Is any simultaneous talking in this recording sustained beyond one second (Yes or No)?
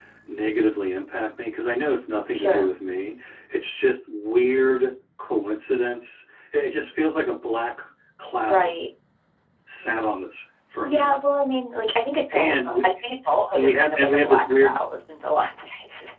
Yes